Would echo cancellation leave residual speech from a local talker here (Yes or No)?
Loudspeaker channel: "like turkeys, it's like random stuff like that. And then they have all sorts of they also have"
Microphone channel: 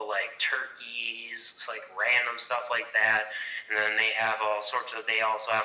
No